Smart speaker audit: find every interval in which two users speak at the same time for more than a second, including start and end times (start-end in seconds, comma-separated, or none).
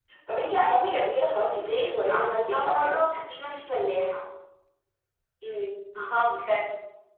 1.5-3.0